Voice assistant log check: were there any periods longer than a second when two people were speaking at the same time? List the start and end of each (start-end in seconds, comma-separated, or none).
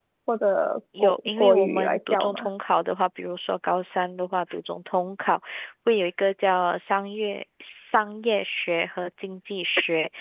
1.0-2.5